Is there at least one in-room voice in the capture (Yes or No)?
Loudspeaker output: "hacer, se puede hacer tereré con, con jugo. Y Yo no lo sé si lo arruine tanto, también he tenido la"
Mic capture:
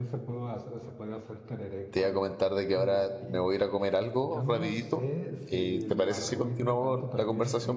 Yes